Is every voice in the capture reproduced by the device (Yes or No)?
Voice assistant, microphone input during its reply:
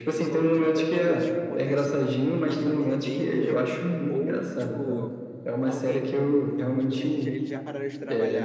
No